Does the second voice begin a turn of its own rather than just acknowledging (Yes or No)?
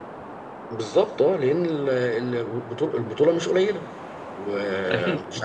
No